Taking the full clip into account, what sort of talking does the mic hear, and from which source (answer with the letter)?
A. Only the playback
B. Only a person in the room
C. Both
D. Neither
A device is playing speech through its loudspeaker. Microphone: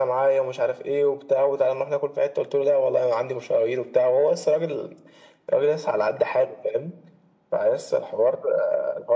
A